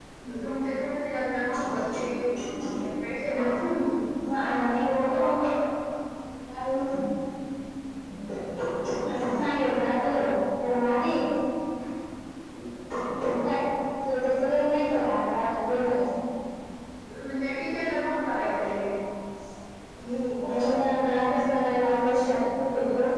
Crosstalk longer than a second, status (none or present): none